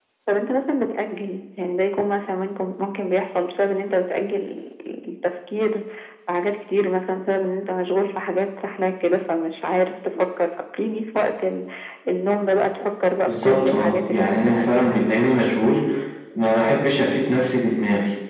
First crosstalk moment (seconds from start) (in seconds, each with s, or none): 13.3 s